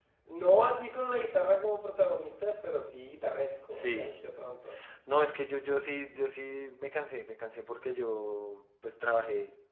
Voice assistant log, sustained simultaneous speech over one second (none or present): none